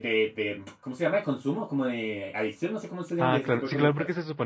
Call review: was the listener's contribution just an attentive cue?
No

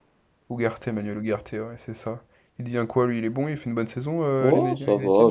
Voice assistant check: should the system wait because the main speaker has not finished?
No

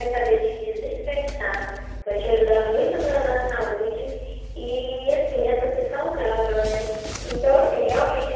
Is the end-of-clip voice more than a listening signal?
No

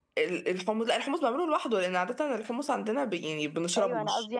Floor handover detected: Yes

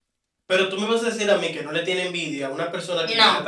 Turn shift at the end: No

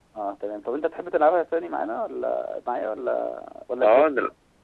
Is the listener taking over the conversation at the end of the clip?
Yes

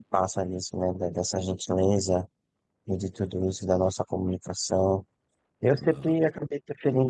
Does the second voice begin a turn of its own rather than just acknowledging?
No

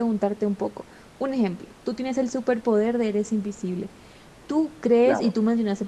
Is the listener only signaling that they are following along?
Yes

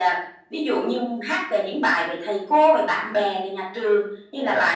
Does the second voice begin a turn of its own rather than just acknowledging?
No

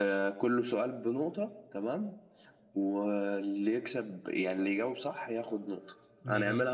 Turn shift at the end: No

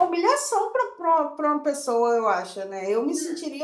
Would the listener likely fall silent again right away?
Yes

